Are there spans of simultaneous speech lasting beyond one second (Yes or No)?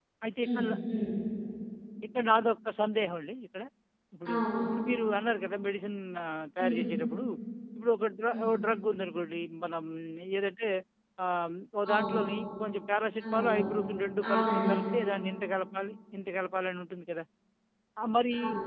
No